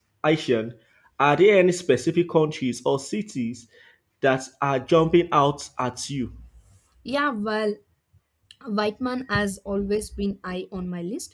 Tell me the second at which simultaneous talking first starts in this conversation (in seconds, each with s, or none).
none